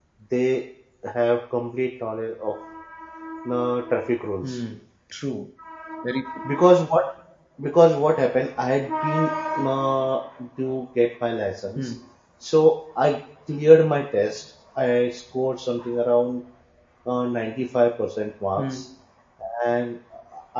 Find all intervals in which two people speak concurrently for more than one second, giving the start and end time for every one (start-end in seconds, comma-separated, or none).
none